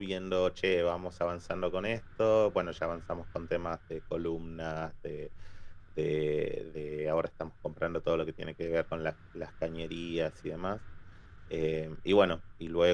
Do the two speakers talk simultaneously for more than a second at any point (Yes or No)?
No